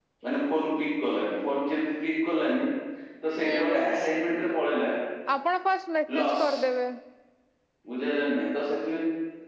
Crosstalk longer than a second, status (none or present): none